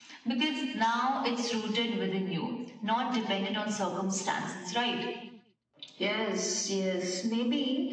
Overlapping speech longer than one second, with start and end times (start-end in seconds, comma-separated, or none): none